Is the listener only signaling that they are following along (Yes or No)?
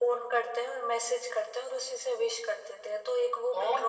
No